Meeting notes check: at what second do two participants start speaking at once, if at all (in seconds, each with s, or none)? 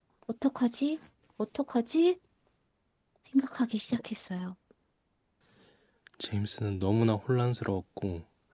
none